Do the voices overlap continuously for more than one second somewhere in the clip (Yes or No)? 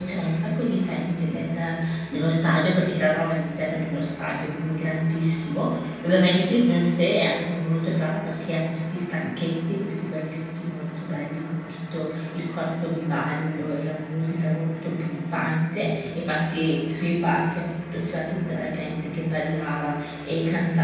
No